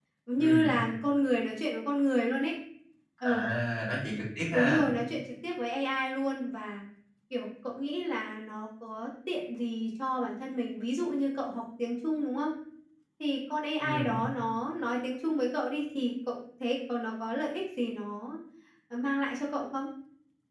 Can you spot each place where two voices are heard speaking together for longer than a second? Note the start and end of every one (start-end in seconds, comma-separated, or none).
none